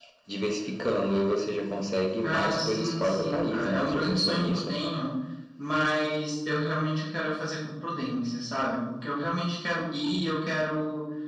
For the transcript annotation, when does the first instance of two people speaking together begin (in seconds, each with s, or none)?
2.2 s